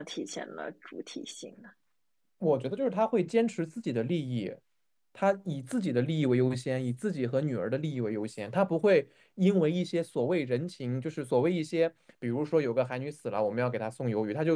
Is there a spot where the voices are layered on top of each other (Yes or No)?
No